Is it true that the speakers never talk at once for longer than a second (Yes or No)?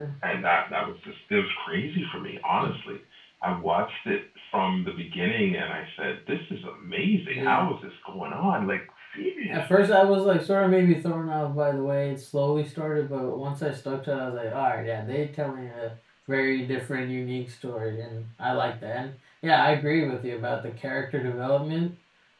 Yes